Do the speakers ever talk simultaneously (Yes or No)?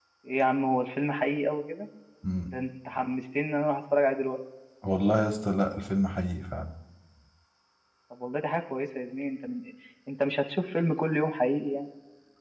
No